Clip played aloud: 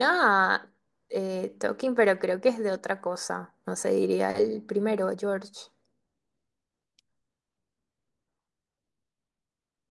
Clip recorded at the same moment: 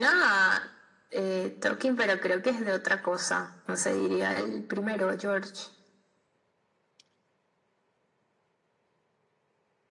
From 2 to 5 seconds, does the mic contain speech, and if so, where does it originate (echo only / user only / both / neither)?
echo only